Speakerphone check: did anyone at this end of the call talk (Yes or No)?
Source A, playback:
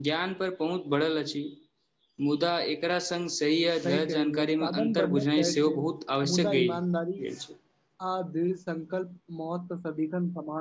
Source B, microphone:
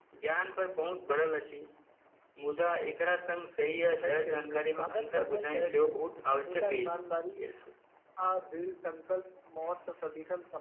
No